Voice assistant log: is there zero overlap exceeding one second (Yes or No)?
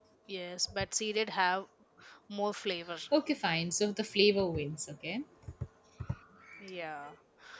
Yes